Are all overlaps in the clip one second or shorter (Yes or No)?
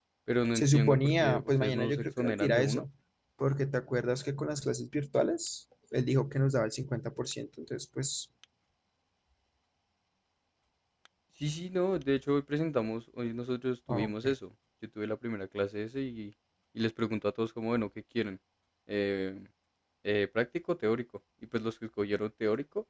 No